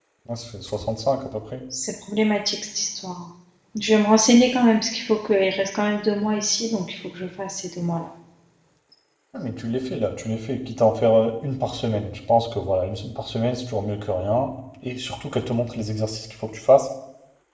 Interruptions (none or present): none